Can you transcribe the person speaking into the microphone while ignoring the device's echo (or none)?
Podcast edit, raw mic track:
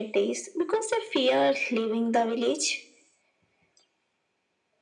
none